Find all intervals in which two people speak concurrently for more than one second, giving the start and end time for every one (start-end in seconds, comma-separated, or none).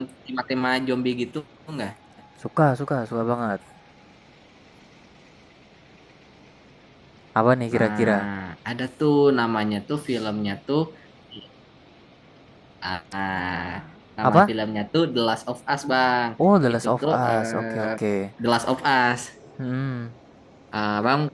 16.7-17.9